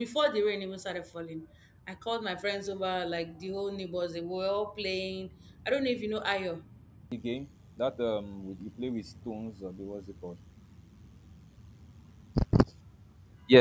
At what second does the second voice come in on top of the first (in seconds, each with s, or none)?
none